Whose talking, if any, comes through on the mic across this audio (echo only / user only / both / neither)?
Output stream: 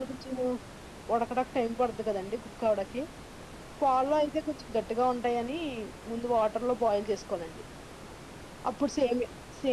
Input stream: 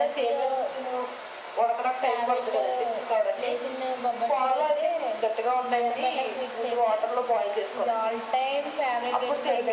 both